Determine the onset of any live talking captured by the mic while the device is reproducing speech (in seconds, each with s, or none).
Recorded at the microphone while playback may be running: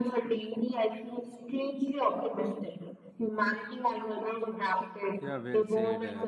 5.2 s